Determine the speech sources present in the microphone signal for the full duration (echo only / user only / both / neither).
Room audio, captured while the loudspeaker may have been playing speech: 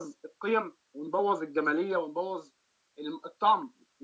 echo only